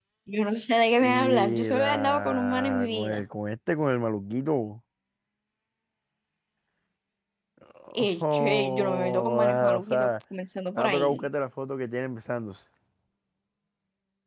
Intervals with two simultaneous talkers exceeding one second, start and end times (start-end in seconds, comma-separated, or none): 1.0-3.2, 8.0-10.1